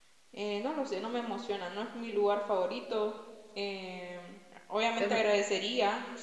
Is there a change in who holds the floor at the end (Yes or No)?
No